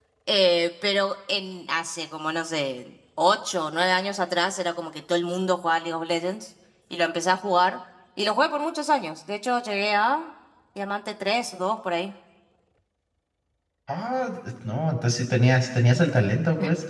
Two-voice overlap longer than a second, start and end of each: none

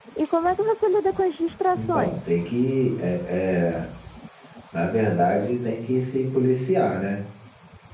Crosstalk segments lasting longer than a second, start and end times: none

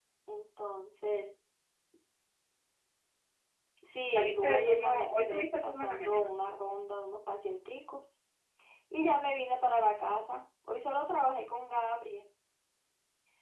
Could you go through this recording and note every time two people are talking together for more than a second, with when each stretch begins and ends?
4.2-6.3

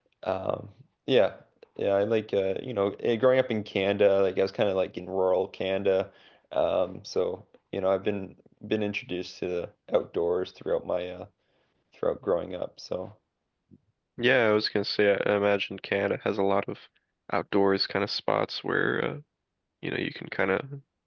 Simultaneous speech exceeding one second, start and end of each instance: none

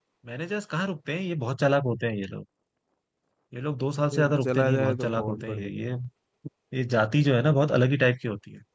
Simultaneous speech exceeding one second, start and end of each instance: 4.1-5.7

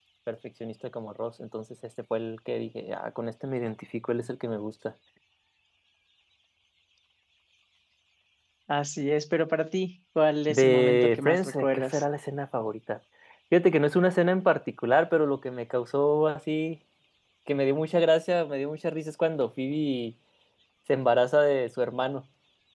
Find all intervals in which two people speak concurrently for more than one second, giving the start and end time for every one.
10.5-12.0

